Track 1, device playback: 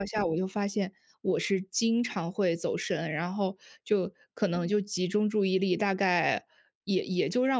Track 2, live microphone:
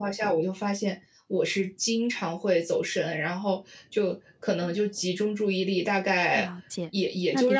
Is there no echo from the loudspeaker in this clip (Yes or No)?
No